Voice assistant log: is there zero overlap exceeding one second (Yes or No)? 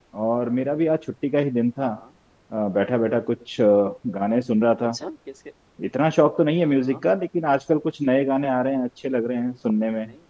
Yes